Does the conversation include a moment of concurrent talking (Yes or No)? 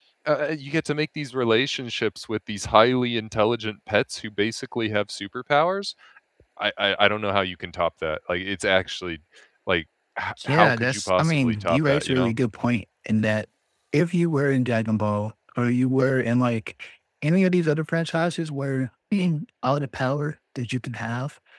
Yes